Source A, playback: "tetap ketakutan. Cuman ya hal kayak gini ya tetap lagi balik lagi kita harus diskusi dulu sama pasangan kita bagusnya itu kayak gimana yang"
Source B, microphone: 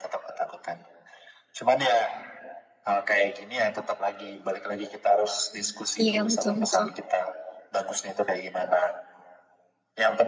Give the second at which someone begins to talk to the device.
6 s

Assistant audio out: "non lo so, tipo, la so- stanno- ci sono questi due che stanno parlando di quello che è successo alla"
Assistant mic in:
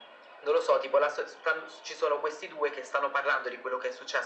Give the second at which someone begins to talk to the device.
none

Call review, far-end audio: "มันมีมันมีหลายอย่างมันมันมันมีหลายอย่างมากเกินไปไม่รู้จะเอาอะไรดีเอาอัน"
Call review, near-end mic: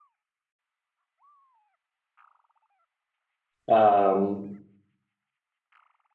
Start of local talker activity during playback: 4 s

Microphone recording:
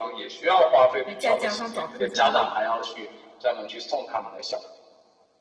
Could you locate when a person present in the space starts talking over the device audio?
1 s

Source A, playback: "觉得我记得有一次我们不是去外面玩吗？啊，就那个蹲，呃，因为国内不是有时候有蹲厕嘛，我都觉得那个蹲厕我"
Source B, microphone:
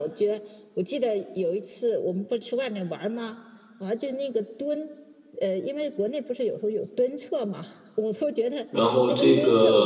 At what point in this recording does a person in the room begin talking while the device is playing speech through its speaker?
9 s

